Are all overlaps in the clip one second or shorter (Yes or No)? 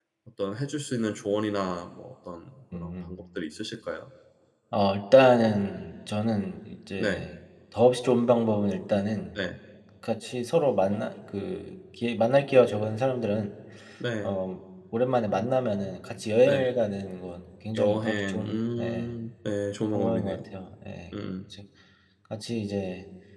No